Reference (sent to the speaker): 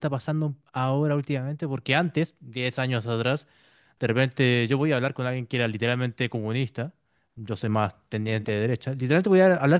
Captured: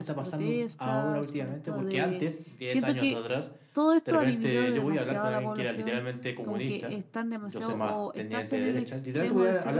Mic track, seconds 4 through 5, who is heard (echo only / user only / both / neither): both